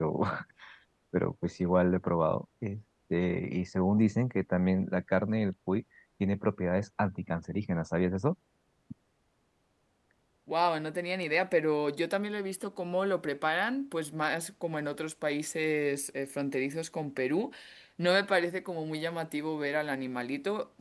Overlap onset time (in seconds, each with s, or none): none